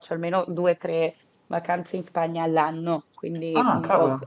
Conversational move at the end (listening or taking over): listening